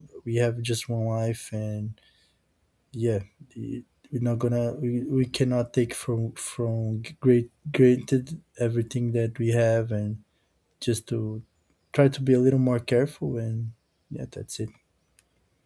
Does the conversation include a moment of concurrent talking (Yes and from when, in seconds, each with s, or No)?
No